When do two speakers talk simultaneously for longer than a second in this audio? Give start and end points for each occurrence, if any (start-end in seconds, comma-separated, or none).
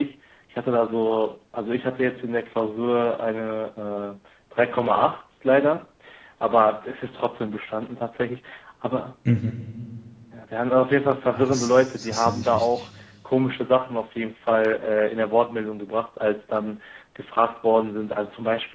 11.3-12.7